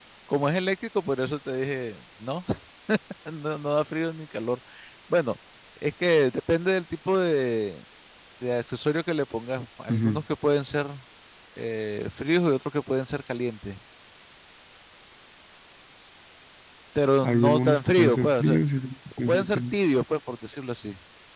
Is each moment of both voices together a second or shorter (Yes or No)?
No